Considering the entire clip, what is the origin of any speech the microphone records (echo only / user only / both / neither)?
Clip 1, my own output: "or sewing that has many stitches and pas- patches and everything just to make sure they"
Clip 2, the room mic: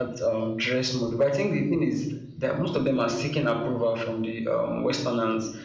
user only